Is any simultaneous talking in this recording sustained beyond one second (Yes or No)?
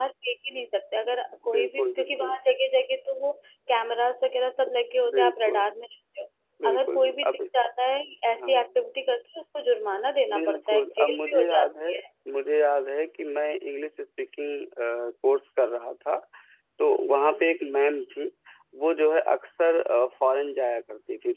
Yes